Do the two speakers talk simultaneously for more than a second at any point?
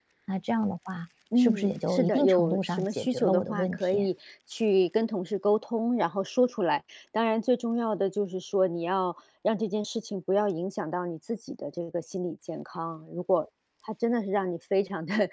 Yes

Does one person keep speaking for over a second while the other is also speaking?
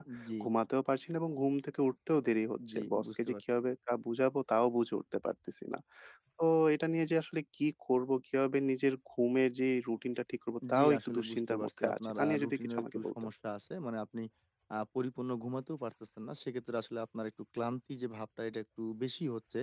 Yes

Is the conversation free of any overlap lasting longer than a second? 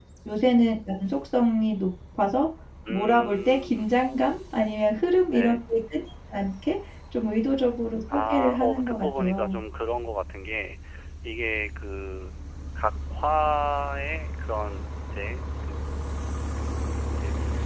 No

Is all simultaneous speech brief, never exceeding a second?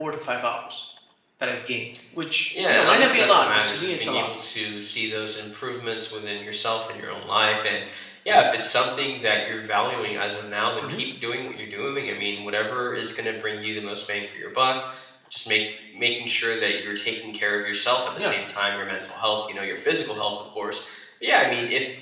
No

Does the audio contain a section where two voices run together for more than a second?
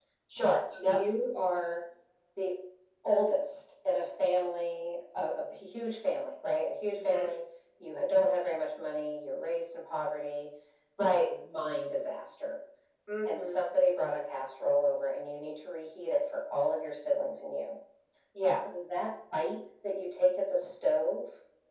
No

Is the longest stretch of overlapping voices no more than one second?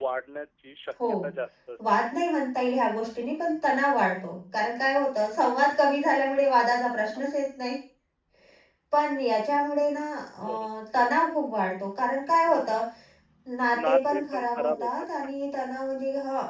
No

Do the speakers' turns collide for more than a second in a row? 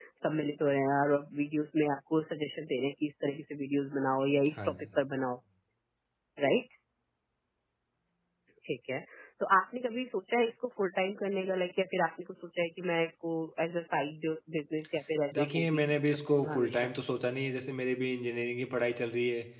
Yes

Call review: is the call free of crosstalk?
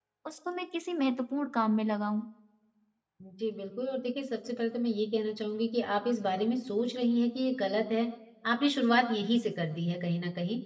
Yes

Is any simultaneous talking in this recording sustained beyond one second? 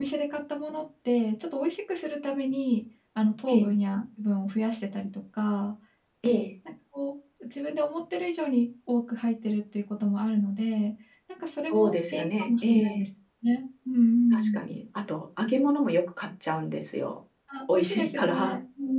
Yes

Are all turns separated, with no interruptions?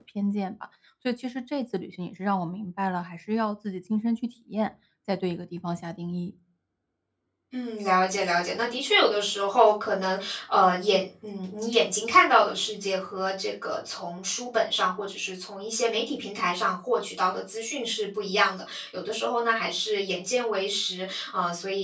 Yes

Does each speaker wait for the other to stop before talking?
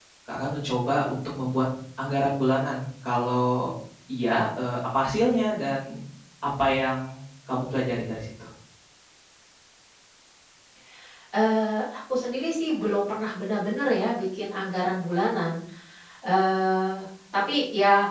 Yes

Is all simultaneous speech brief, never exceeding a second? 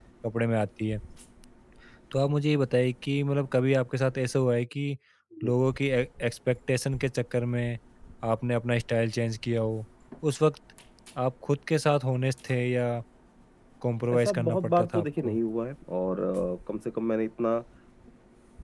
No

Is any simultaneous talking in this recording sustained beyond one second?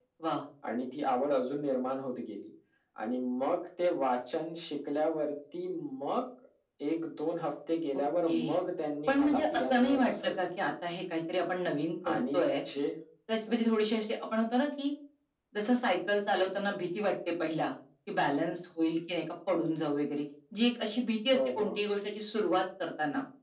Yes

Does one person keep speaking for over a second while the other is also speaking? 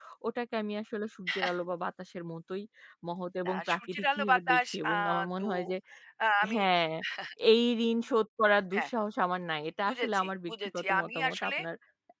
Yes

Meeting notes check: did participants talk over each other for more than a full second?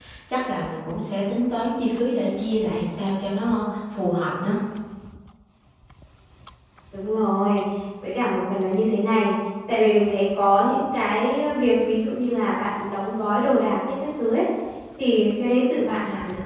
No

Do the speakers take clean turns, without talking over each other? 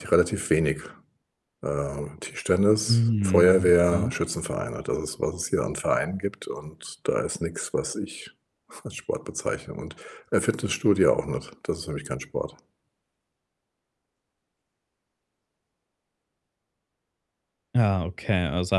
No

